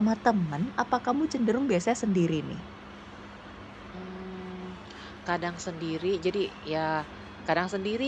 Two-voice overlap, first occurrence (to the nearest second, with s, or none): none